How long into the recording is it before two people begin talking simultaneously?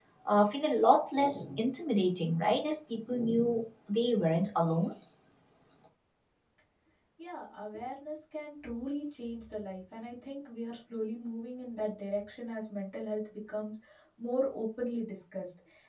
none

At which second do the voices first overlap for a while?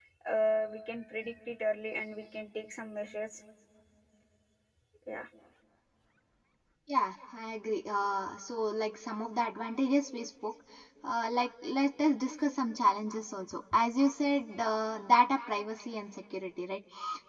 none

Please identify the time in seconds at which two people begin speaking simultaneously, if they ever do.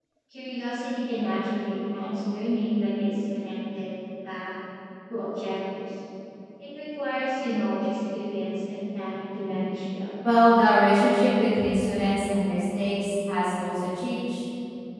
none

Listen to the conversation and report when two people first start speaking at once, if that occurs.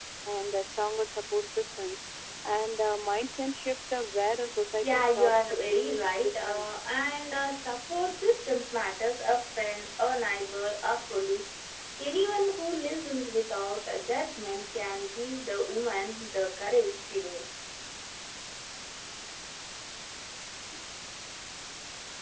4.8 s

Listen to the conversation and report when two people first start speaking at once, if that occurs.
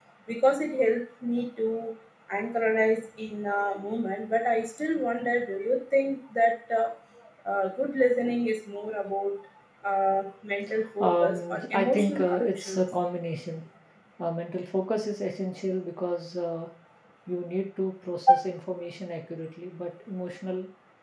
11.0 s

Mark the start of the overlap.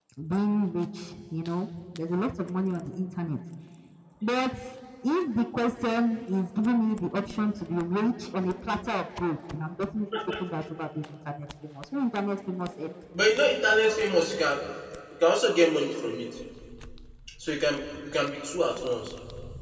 none

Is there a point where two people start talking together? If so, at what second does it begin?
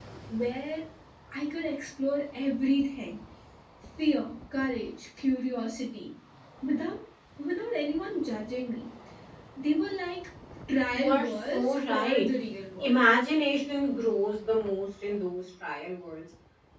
10.9 s

